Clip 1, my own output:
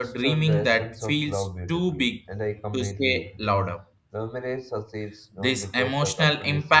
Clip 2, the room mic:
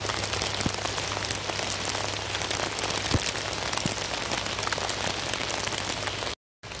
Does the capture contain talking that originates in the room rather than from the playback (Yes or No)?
No